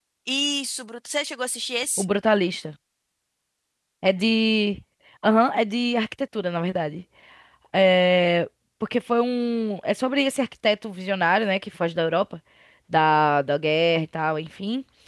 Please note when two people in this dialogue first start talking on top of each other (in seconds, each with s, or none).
none